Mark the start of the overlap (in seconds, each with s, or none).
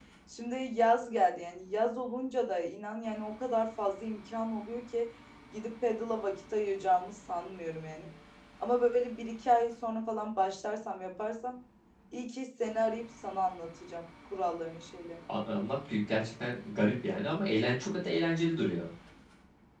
none